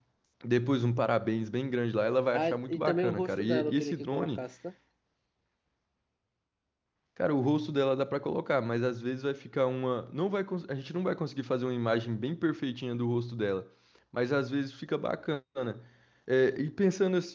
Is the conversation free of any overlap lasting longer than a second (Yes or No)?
No